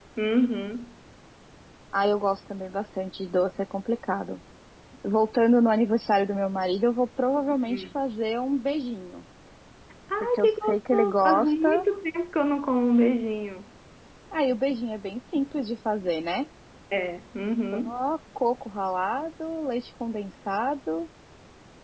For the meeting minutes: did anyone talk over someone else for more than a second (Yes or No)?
Yes